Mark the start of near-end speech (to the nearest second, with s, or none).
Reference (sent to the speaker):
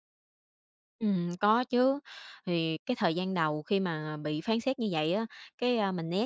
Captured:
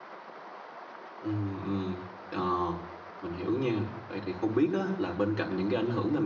1 s